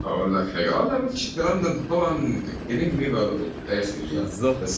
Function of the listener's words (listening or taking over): listening